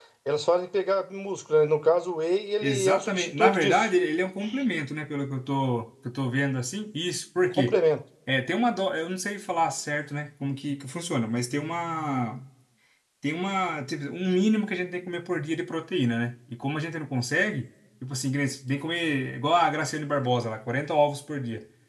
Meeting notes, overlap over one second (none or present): present